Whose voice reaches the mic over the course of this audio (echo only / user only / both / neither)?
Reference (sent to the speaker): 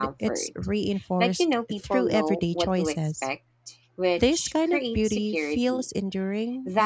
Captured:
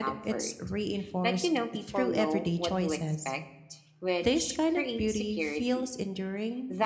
echo only